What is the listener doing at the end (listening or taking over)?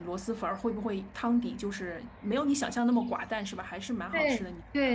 taking over